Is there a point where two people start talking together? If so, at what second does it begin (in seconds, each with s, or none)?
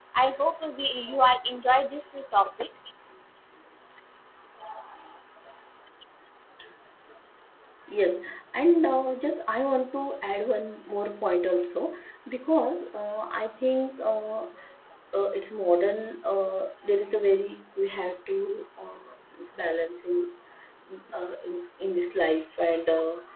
none